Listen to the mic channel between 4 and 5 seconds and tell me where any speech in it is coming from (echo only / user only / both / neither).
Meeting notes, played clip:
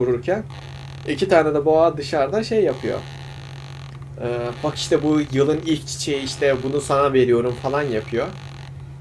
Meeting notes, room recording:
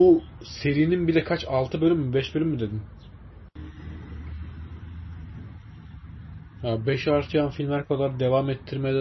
neither